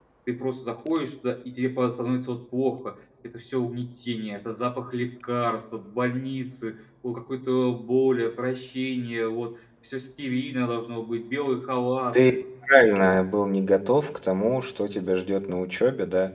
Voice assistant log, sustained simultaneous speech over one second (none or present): none